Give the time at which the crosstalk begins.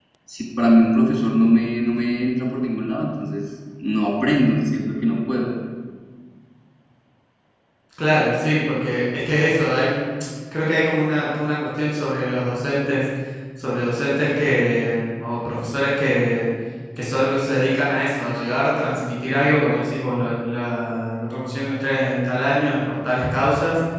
none

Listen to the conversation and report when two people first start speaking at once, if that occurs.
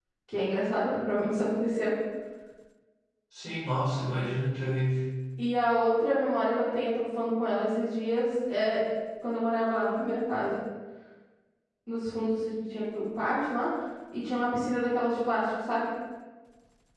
none

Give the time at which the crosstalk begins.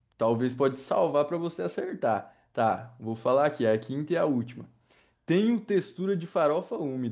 none

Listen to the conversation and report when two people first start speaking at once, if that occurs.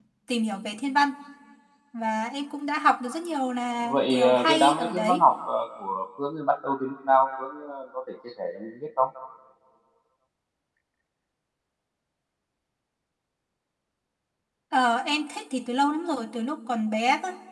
3.8 s

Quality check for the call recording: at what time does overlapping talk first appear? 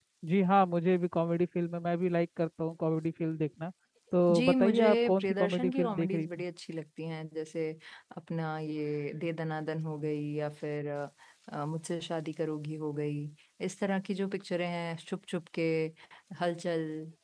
4.3 s

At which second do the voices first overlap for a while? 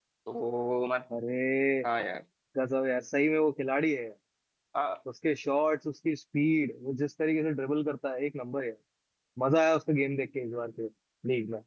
none

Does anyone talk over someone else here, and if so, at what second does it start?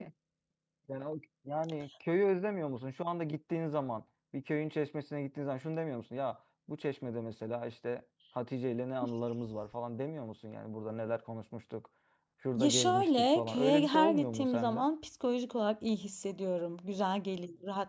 12.6 s

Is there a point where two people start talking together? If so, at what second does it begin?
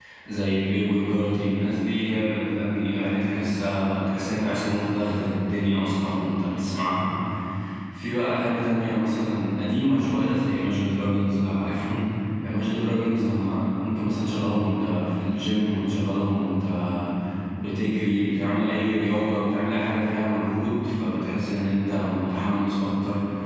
none

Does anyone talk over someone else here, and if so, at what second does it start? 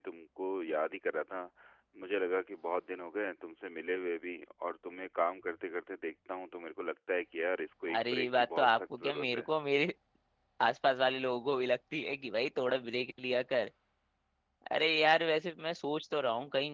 7.9 s

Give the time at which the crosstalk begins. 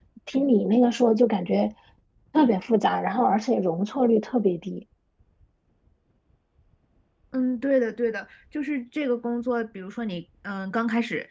none

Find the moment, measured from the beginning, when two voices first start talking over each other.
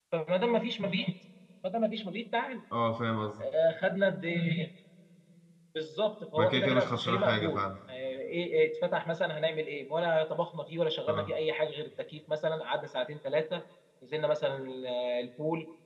6.4 s

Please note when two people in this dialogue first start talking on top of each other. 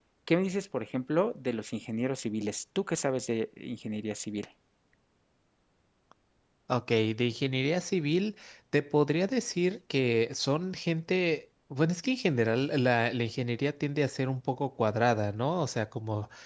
none

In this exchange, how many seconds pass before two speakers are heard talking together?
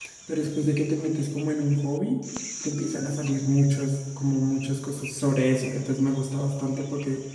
none

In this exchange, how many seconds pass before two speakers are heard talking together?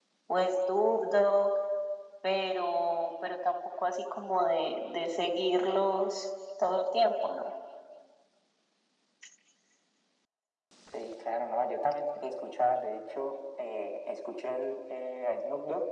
none

